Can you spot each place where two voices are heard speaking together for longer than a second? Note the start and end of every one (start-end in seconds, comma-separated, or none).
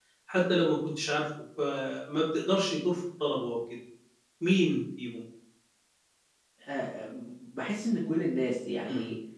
none